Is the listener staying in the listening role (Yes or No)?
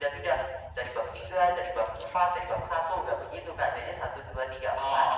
No